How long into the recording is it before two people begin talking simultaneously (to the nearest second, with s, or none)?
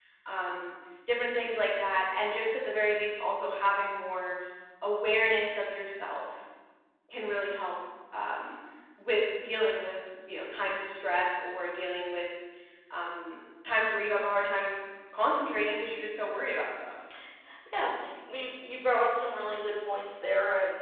none